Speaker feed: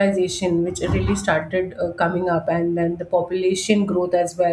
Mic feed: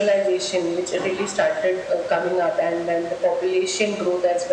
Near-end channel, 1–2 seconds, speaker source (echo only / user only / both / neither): echo only